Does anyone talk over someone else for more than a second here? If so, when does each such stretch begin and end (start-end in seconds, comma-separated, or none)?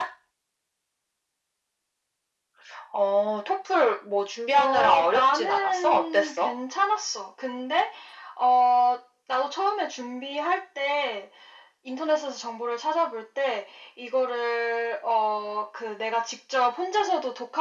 4.5-6.5